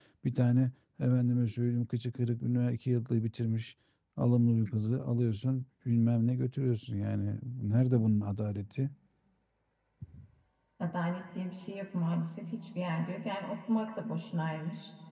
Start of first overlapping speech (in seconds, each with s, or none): none